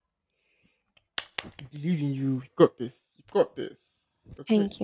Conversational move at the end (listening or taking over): taking over